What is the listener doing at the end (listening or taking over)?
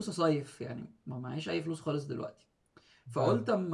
listening